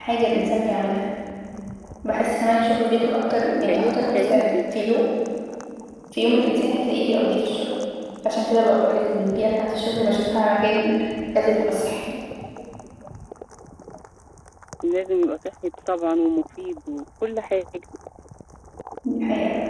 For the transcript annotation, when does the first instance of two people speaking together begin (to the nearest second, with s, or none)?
3 s